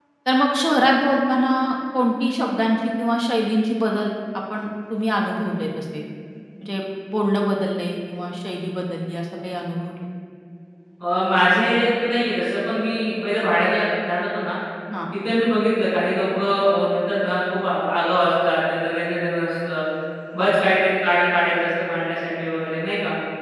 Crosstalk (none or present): none